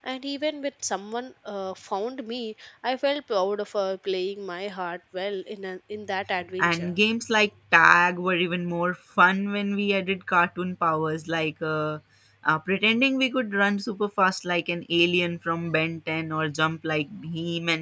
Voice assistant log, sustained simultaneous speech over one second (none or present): none